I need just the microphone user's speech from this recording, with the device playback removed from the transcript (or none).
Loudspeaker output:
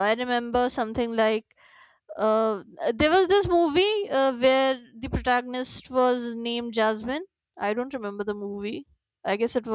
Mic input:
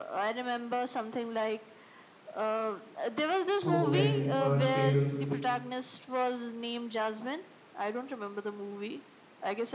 So when words fails,